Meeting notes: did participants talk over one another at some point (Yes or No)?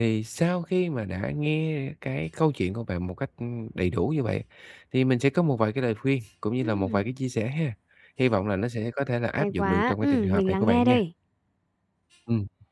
Yes